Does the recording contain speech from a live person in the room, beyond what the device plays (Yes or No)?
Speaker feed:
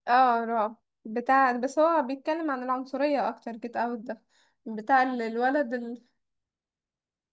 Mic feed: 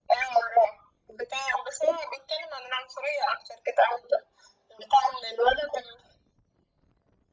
No